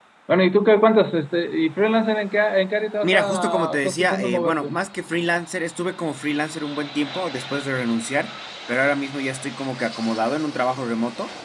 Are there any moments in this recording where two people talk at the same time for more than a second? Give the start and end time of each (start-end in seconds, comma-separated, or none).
3.0-4.7